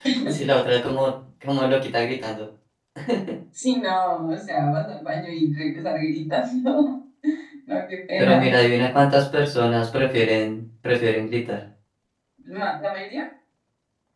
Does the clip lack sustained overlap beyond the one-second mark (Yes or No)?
Yes